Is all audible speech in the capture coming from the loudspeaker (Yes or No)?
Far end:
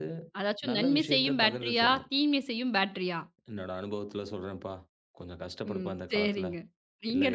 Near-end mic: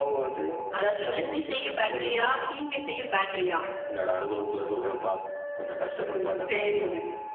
Yes